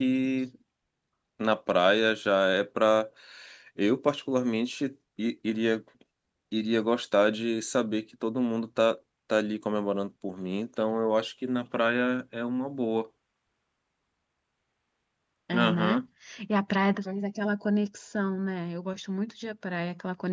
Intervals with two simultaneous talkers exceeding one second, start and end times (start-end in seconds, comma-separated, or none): none